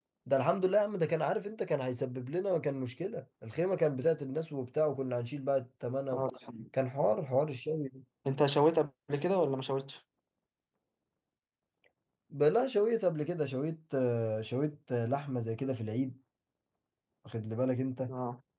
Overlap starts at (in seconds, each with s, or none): none